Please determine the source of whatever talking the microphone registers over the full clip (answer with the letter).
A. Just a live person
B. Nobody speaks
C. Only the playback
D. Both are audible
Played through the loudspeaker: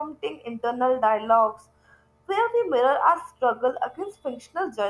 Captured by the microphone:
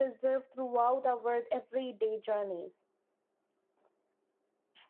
A